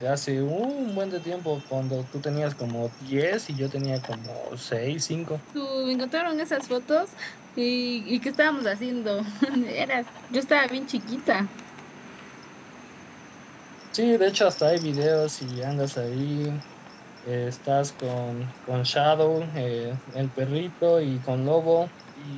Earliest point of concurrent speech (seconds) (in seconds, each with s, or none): none